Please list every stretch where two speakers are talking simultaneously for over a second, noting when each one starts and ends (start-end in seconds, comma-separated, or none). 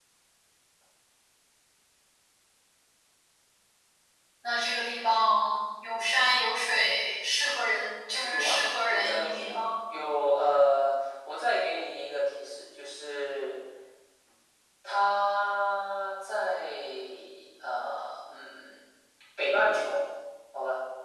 8.2-9.6